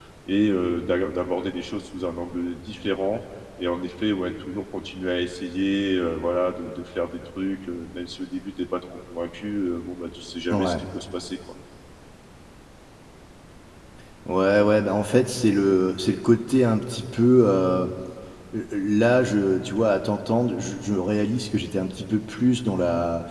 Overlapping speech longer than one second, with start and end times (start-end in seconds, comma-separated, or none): none